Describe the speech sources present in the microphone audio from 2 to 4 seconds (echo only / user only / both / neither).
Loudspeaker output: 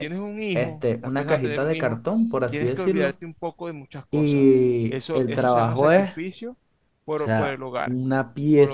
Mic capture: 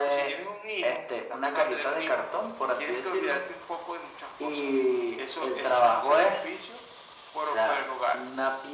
echo only